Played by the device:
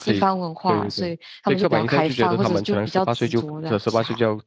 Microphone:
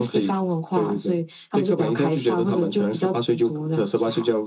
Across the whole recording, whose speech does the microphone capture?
echo only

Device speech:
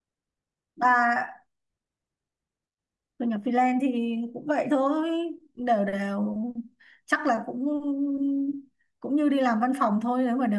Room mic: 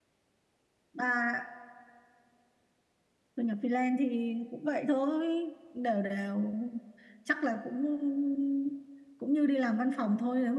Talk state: echo only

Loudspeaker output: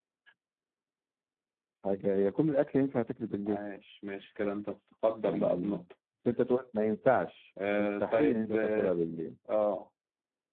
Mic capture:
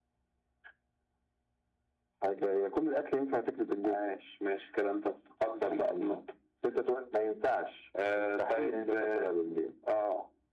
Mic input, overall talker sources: echo only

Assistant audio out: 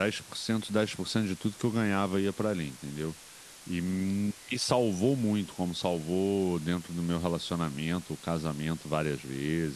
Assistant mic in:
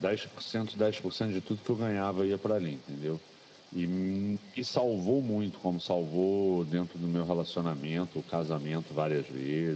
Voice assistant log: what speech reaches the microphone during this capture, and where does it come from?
echo only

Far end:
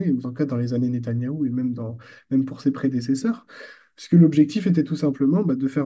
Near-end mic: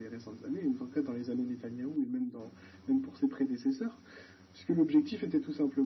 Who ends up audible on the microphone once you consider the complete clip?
echo only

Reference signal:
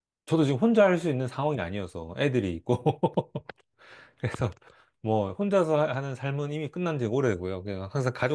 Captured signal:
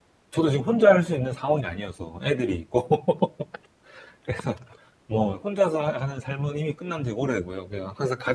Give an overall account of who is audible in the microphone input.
echo only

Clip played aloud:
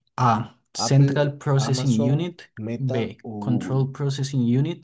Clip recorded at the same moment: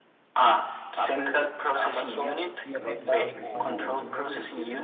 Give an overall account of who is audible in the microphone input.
both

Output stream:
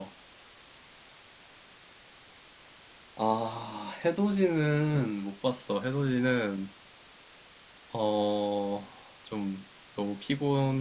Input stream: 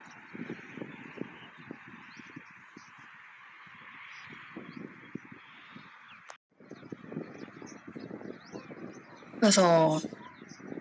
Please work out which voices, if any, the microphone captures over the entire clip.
user only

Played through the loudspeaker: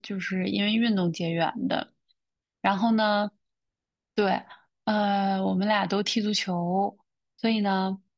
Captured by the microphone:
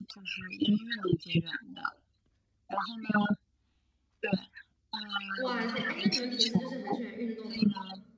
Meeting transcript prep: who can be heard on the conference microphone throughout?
both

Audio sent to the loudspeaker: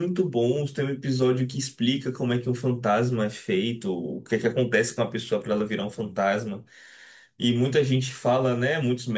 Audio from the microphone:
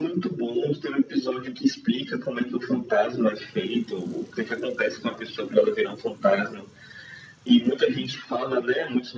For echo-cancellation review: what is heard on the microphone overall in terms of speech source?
echo only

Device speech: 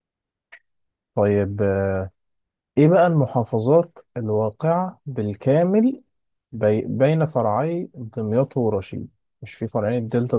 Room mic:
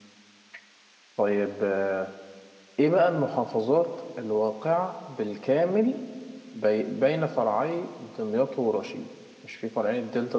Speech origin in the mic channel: echo only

